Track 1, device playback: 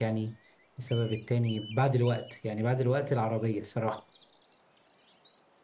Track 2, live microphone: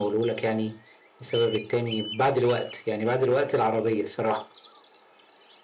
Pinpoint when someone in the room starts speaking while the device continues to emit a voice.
none

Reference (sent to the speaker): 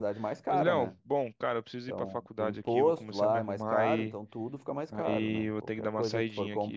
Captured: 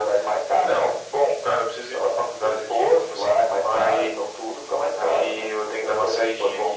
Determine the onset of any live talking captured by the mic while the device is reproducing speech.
none

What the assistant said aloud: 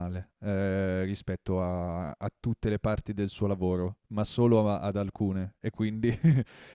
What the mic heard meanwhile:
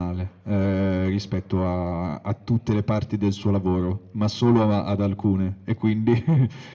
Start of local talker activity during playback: none

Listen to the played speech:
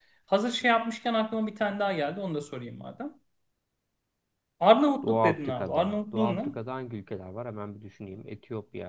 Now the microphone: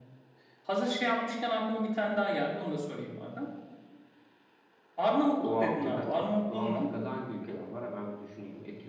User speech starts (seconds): none

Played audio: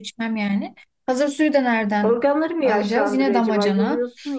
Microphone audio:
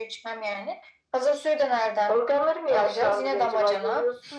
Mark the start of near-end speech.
none

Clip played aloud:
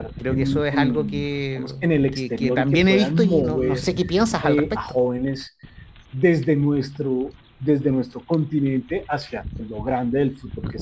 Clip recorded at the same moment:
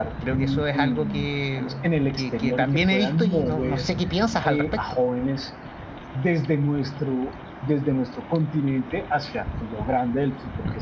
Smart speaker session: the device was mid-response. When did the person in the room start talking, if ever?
none

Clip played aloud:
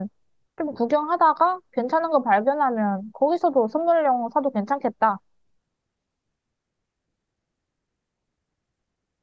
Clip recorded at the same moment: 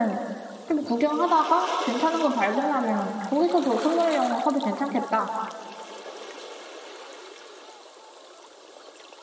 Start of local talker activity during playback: none

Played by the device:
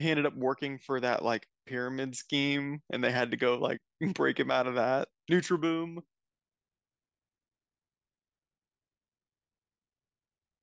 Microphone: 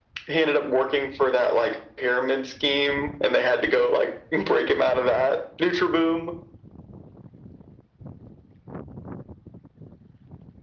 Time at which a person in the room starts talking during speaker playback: none

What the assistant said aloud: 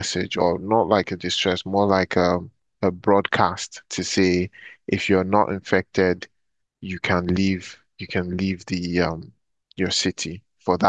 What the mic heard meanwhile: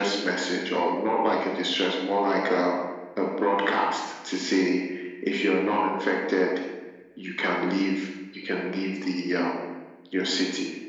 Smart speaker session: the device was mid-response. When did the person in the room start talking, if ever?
none

